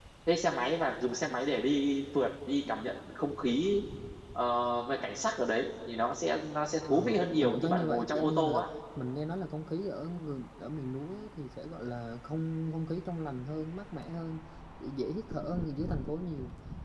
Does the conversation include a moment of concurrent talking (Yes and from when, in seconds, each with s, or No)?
Yes, from 6.9 s